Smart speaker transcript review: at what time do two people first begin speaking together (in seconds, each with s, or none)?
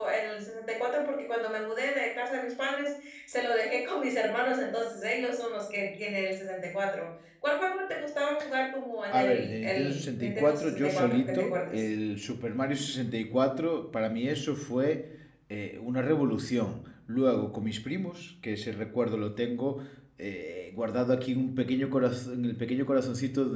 9.1 s